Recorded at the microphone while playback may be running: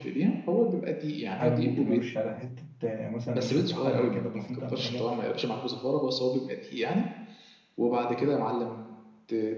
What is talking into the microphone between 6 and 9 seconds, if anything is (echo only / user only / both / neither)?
echo only